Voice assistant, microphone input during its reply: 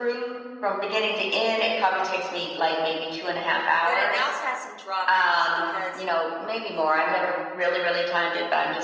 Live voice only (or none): but it also has some drawbacks because